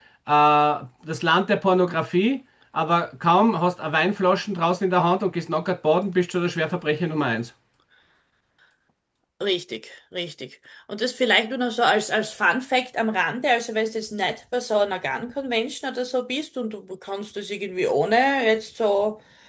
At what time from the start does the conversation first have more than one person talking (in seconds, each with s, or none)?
none